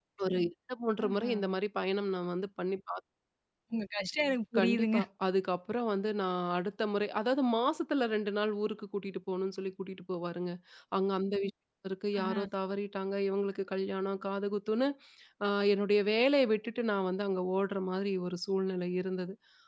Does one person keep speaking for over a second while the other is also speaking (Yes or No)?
No